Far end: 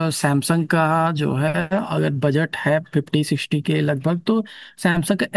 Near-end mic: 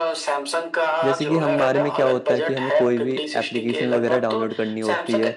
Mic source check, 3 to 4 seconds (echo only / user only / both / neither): both